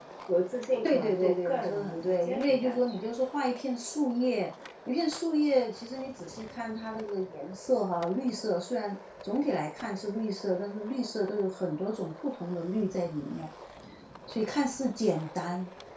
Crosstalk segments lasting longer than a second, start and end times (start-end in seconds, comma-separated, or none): 0.8-3.0